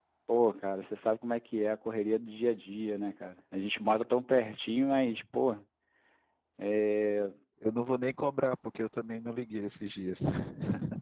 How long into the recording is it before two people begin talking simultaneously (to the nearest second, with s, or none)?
none